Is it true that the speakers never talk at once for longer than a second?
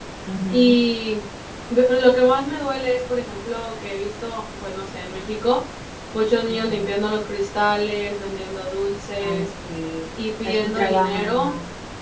No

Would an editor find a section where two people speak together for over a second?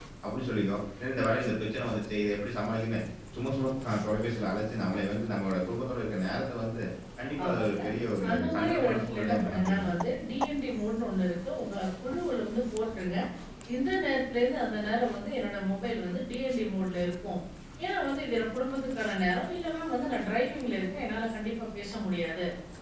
Yes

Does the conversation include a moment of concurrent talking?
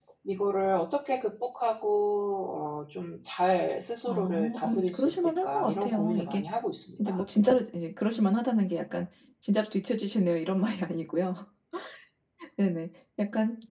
Yes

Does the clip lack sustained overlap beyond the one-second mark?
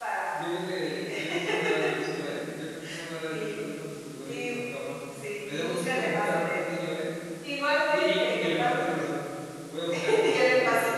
No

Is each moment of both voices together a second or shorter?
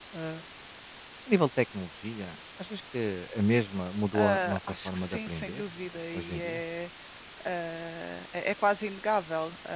No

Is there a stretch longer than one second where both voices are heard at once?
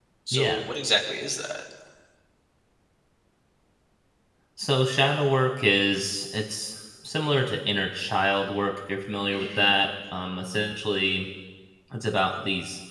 No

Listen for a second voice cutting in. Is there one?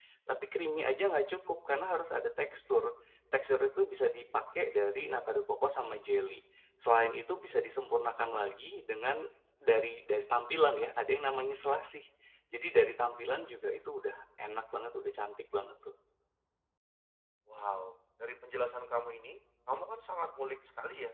No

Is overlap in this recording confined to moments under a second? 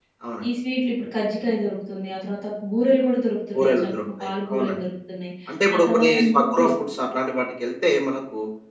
No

